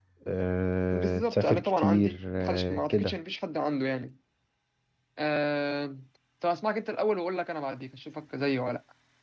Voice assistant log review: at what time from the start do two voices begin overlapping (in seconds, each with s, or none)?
0.9 s